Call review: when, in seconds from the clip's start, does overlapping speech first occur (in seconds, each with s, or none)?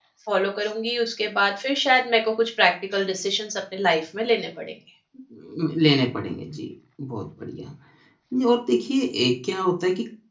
none